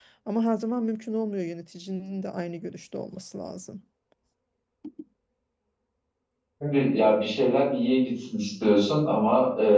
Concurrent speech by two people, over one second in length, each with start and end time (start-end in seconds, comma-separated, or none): none